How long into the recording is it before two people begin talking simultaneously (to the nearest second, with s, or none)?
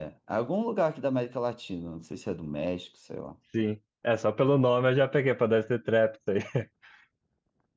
none